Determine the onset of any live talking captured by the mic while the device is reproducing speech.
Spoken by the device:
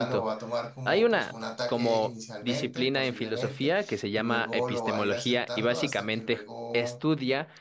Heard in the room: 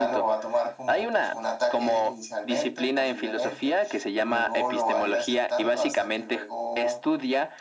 none

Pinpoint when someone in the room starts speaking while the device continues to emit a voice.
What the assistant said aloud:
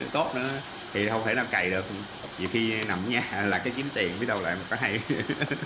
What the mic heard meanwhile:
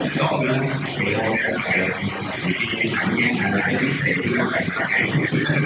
none

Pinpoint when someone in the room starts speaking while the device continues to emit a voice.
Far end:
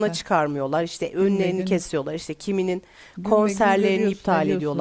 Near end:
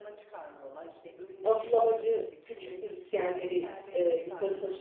1.4 s

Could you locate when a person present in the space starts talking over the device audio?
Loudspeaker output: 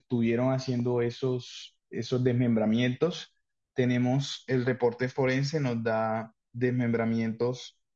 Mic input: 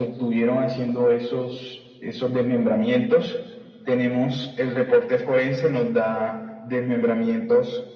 none

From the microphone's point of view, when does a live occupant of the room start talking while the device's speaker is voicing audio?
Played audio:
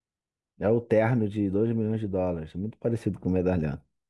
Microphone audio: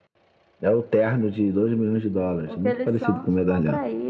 2.5 s

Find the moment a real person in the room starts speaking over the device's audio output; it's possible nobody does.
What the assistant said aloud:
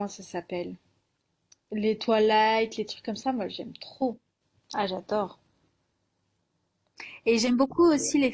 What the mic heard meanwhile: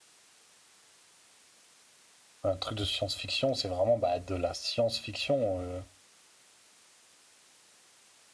2.4 s

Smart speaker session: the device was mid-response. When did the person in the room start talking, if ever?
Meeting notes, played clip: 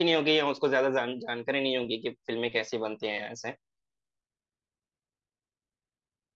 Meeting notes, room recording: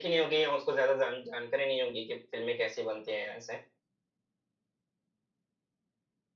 none

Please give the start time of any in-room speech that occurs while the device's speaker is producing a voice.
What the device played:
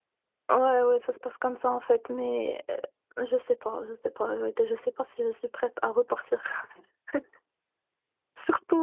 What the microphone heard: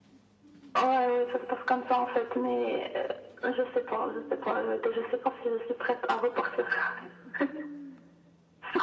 none

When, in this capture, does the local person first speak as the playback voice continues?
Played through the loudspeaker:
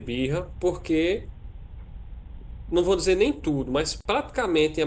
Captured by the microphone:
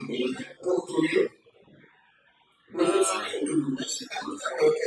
2.8 s

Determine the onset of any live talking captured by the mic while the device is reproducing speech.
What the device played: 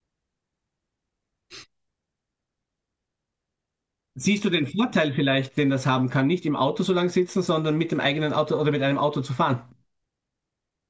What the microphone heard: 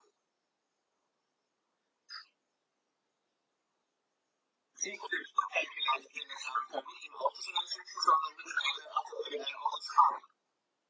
none

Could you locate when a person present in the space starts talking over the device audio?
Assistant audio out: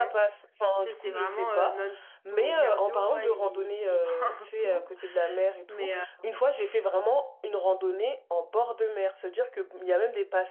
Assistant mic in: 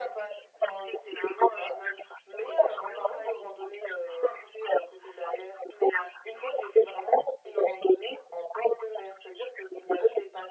none

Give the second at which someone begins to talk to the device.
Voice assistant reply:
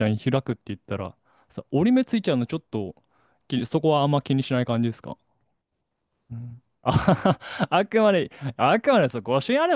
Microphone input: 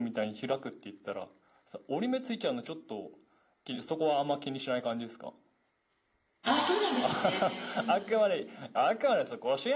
6.4 s

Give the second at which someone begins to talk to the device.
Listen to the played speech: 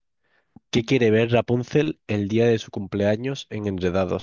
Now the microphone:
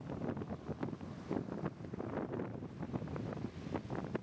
none

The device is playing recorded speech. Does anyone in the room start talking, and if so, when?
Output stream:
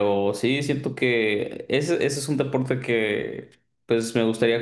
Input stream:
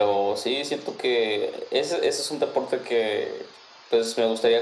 none

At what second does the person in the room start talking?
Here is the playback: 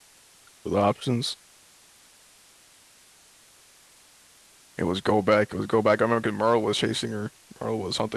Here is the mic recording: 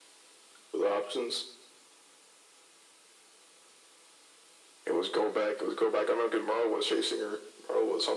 none

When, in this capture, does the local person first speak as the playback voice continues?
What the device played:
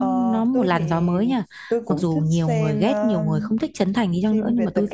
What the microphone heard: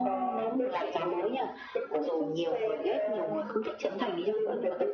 none

